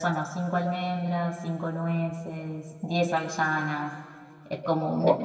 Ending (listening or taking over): listening